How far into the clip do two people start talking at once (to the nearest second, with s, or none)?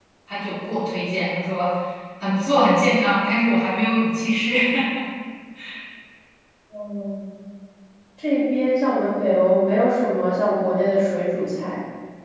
none